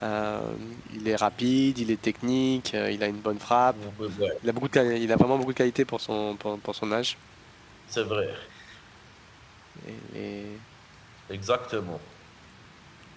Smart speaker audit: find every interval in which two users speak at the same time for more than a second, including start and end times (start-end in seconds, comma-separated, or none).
none